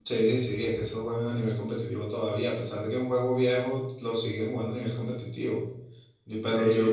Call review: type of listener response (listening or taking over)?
listening